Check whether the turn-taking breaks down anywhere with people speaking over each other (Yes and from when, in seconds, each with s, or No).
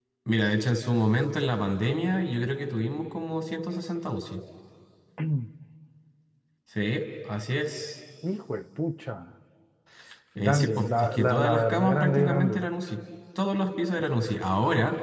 Yes, from 10.4 s